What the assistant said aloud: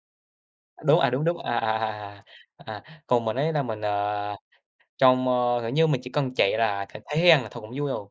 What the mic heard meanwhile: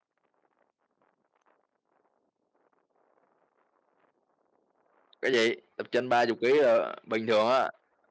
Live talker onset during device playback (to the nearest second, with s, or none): 5 s